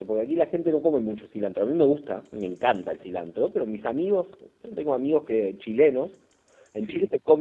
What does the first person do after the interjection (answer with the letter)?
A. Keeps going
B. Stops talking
A